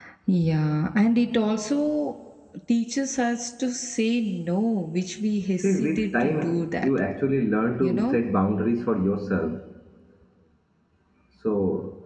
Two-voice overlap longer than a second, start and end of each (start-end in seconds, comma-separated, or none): 5.6-6.9